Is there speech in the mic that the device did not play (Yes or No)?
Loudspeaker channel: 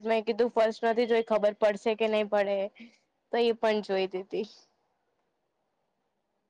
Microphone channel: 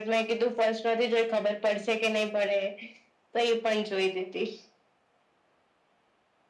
No